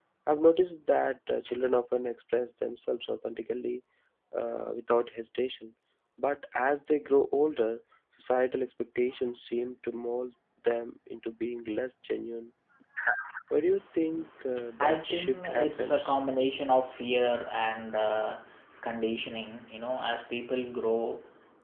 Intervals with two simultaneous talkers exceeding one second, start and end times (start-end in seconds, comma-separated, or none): 14.8-16.1